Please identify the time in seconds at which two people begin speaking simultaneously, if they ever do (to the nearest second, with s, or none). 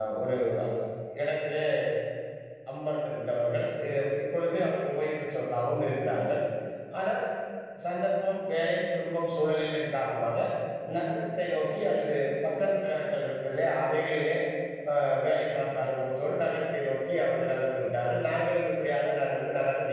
none